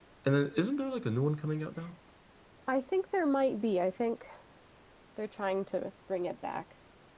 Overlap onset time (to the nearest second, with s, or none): none